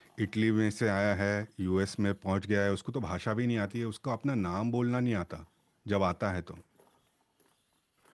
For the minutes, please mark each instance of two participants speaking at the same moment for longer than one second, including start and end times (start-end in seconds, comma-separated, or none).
none